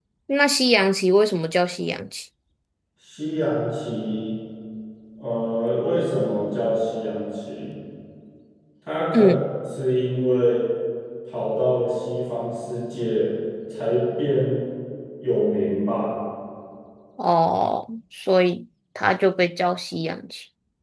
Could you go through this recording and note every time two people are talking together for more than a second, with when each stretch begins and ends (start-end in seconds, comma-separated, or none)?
none